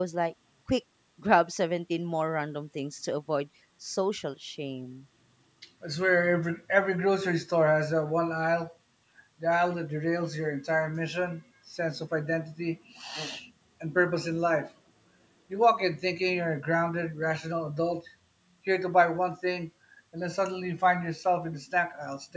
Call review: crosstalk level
none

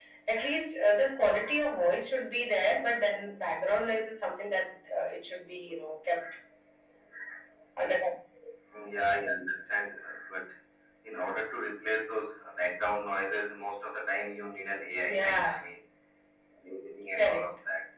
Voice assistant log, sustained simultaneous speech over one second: none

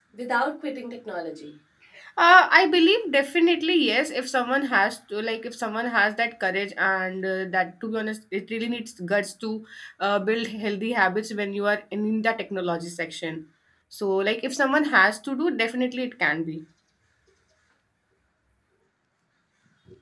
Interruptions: none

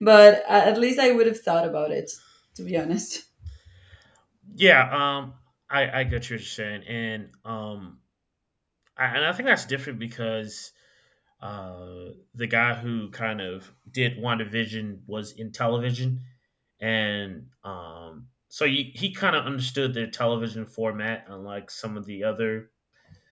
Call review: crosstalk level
none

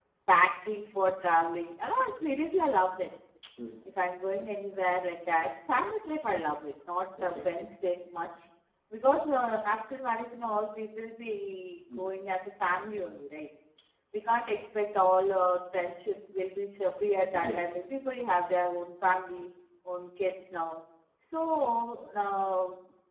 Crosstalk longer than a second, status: none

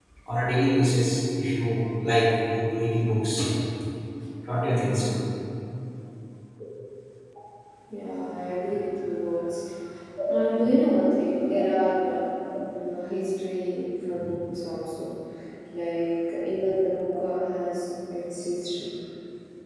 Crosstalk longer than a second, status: none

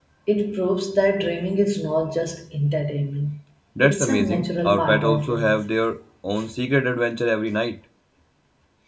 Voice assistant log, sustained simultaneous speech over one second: present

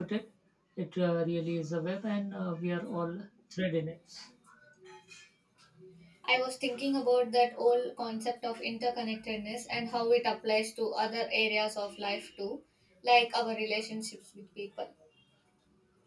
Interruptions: none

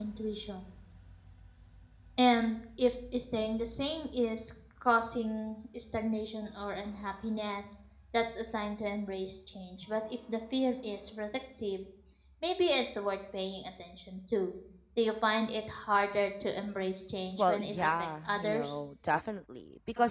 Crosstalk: present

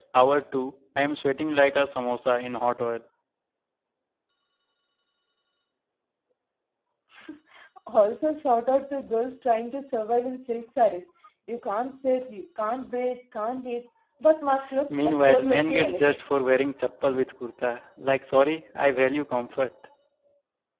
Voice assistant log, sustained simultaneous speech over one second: present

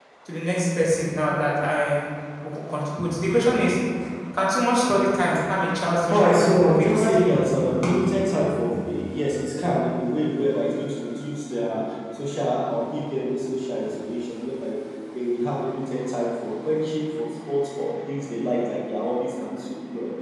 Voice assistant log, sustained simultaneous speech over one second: present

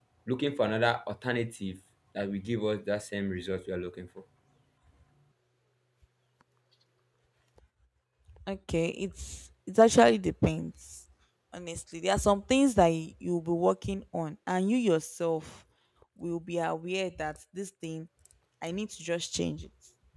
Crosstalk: none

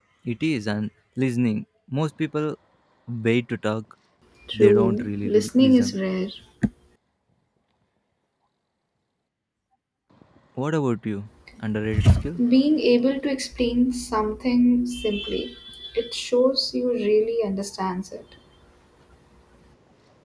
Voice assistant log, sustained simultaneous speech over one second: present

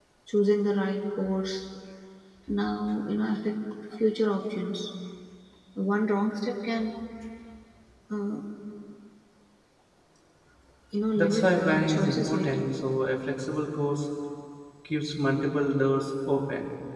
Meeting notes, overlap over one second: present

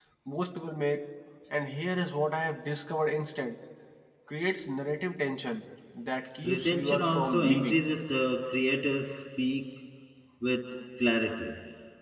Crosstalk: present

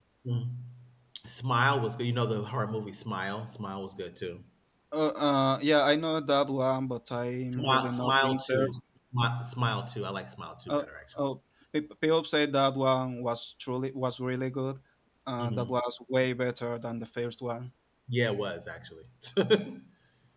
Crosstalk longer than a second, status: present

